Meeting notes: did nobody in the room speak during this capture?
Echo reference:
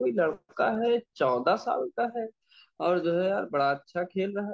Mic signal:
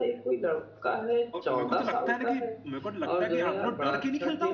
No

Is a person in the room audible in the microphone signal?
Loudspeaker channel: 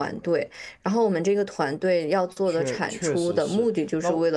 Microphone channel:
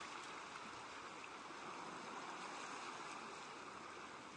No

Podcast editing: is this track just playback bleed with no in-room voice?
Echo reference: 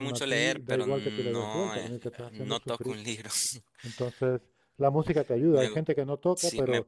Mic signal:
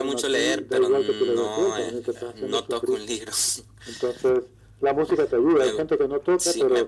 Yes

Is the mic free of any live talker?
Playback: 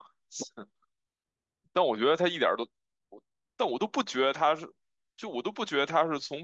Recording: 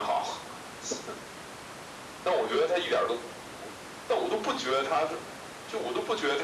Yes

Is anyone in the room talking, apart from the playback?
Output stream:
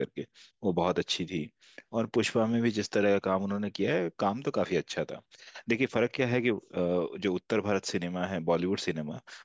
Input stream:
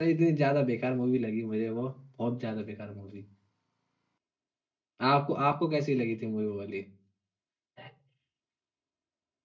Yes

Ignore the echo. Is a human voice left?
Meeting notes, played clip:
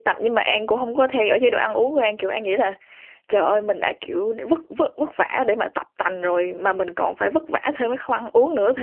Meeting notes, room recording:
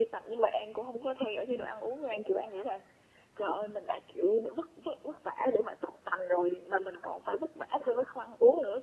No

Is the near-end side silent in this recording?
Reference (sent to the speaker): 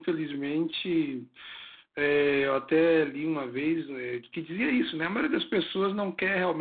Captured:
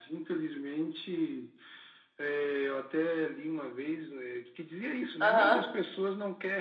No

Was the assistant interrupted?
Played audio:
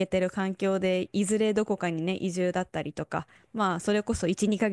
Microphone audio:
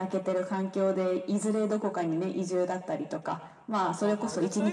Yes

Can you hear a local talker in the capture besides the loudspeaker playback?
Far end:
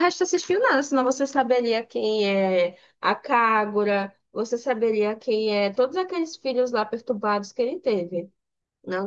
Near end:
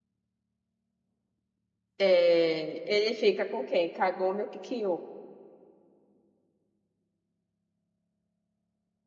Yes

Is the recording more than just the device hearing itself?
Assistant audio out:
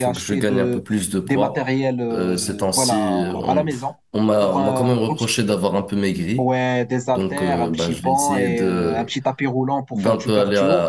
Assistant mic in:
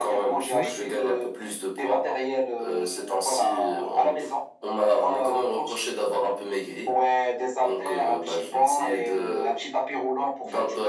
Yes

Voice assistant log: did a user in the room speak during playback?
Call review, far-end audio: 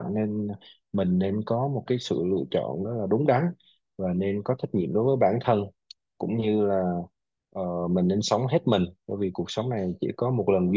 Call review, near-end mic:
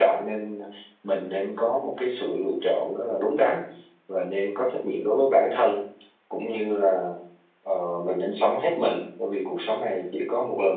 No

